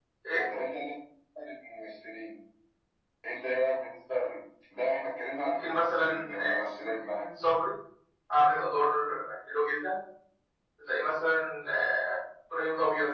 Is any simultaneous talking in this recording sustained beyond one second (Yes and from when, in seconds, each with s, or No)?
Yes, from 5.4 s